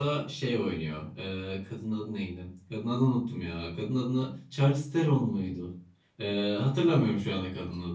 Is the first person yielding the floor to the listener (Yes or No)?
No